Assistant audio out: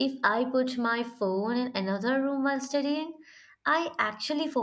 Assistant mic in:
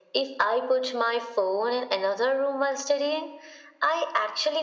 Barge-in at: none

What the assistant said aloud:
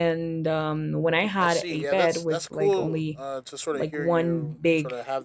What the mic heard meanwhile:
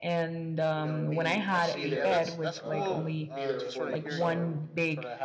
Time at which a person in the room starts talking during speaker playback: 0.7 s

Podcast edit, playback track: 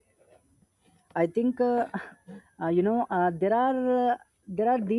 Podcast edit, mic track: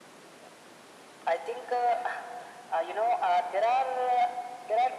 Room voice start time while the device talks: none

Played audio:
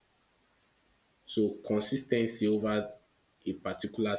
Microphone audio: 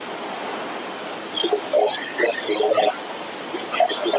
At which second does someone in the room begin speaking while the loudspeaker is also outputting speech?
none

